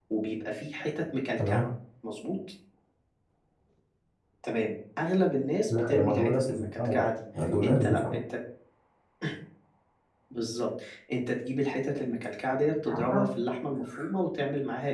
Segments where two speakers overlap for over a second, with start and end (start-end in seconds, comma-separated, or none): 5.7-7.1